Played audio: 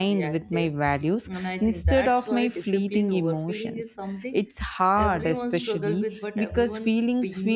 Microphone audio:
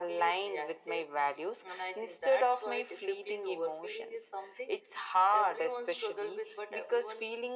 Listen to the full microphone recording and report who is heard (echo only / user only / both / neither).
echo only